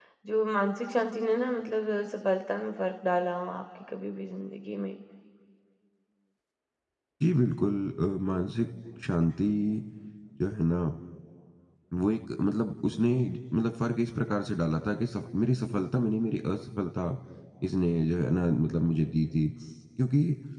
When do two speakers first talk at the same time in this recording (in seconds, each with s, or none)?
none